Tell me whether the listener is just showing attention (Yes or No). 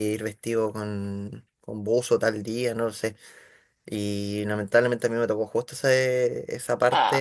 Yes